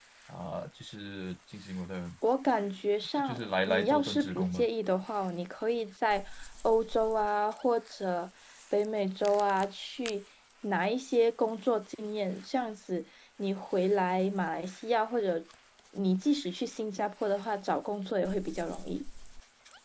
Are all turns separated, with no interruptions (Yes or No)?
No